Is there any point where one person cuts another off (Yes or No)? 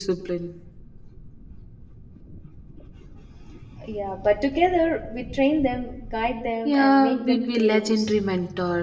Yes